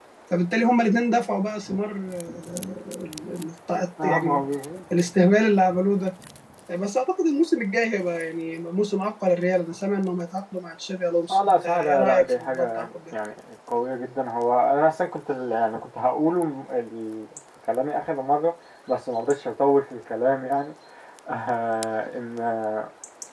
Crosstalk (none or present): present